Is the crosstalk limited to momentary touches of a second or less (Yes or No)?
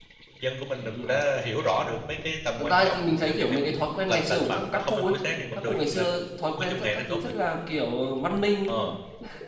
No